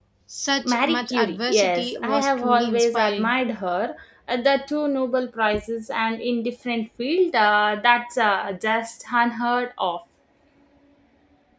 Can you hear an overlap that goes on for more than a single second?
Yes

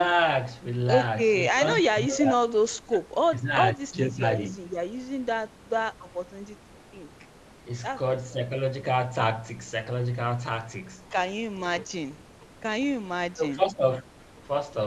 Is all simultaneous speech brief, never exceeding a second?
No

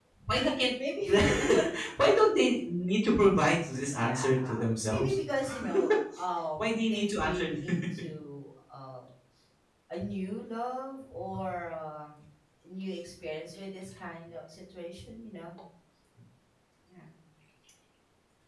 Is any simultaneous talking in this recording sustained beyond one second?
Yes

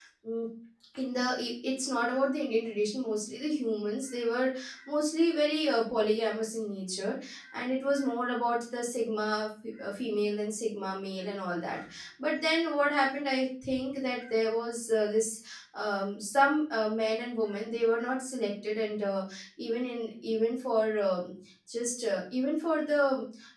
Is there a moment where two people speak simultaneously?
No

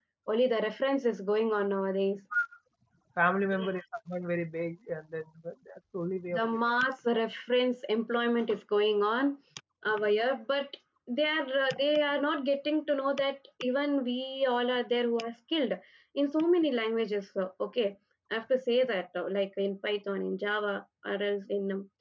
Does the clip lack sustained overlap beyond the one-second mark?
Yes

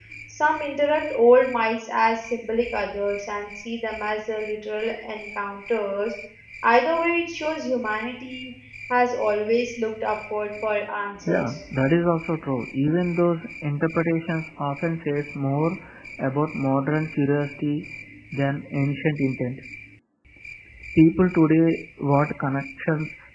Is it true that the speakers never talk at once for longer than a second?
Yes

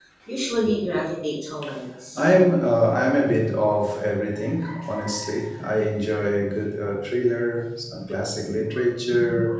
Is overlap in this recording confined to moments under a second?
Yes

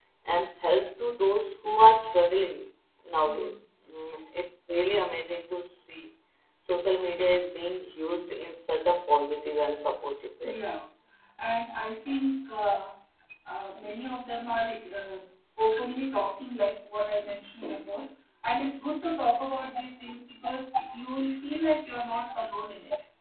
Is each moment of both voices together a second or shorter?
Yes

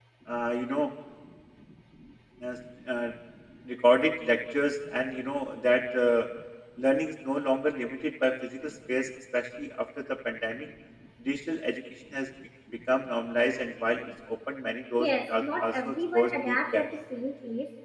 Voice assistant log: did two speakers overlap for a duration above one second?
Yes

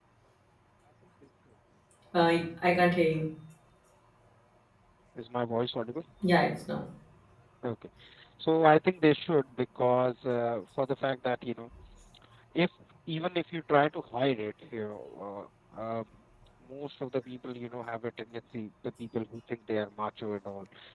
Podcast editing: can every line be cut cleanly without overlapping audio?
Yes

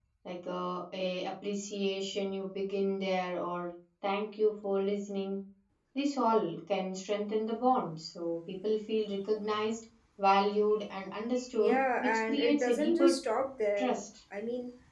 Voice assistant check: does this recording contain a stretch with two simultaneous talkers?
Yes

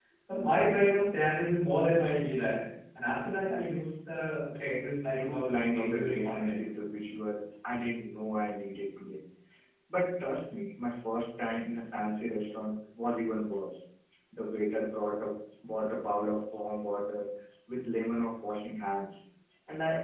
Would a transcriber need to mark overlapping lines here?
Yes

